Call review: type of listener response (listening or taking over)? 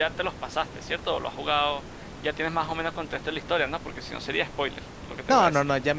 taking over